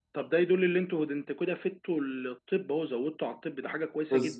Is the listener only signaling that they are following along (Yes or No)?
No